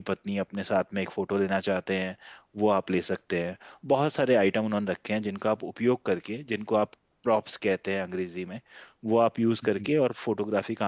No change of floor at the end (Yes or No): Yes